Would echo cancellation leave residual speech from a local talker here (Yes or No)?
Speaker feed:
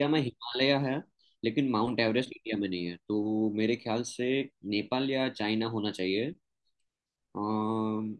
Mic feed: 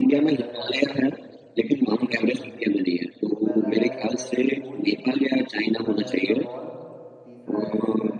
Yes